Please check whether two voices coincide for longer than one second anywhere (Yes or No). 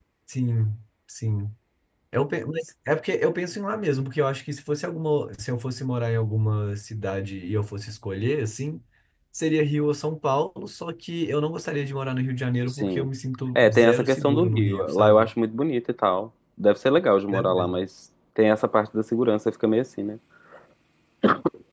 Yes